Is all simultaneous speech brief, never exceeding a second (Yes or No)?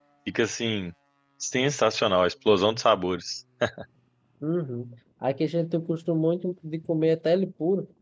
Yes